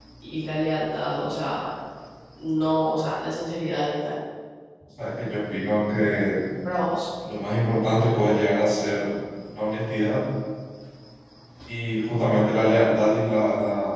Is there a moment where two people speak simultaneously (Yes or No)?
No